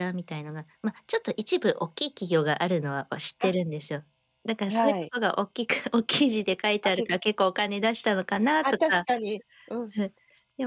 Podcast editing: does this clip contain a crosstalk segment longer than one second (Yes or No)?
No